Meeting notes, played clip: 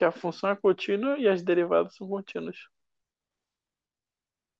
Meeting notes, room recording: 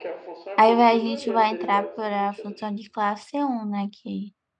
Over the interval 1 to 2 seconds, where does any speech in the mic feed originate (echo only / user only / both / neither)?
both